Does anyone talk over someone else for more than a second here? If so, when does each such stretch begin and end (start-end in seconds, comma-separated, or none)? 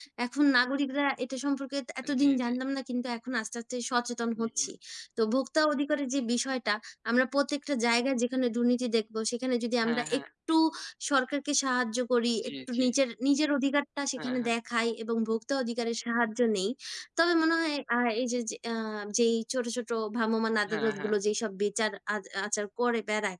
none